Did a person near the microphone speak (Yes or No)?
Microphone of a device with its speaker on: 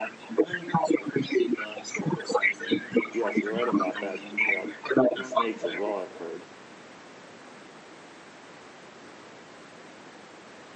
Yes